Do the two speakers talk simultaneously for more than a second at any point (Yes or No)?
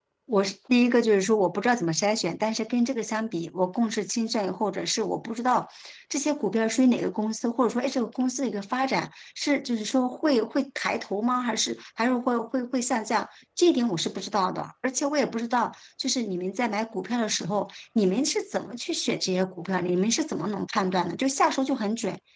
No